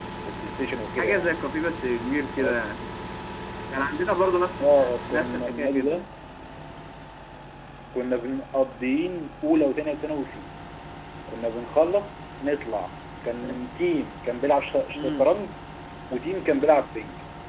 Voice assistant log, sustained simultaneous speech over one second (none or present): present